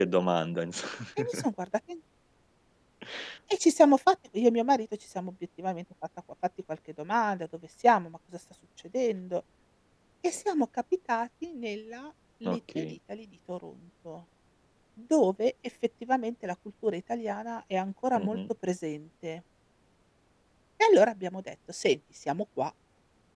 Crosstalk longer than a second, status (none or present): none